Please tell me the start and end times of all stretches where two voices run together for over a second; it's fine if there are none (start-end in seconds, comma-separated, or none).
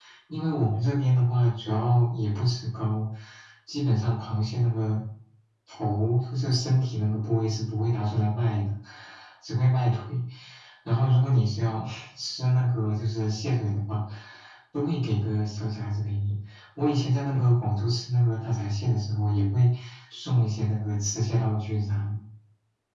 none